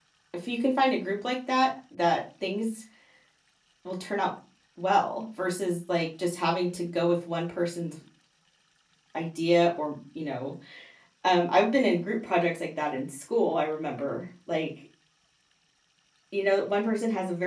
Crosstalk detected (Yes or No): No